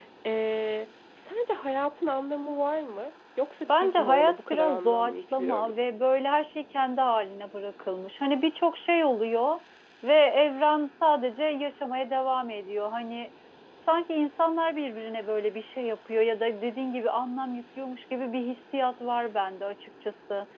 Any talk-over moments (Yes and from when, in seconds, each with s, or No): Yes, from 3.7 s